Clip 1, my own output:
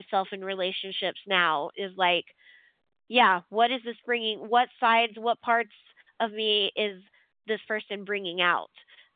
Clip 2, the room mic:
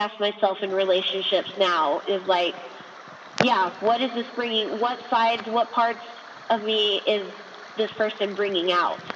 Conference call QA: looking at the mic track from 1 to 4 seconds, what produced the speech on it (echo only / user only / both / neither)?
echo only